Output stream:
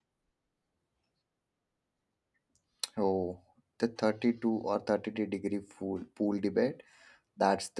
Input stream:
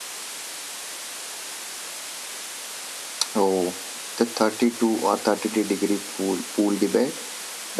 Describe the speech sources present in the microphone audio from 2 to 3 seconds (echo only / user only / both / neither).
neither